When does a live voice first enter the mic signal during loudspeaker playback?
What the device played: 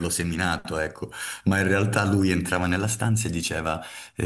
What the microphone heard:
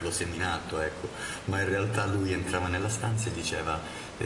none

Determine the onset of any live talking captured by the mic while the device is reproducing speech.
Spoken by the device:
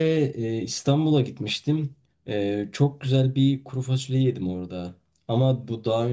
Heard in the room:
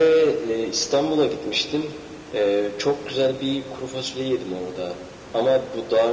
none

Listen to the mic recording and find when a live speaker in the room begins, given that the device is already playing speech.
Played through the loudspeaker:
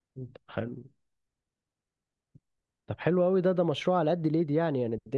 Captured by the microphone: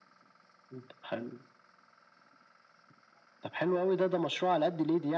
none

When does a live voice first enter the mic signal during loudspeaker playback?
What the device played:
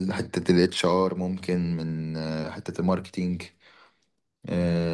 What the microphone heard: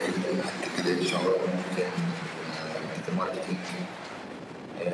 none

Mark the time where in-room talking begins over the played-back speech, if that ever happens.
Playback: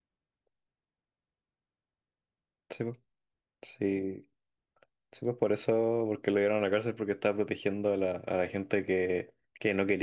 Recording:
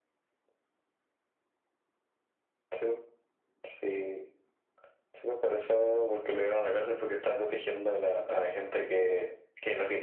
none

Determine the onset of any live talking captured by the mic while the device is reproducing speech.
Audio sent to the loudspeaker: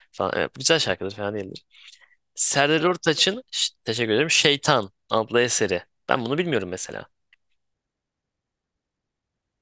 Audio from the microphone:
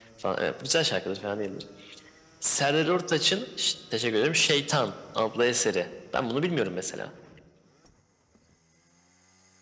none

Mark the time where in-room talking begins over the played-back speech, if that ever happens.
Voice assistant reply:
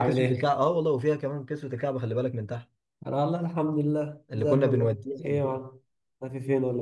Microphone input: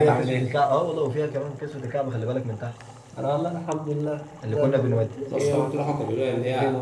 5.3 s

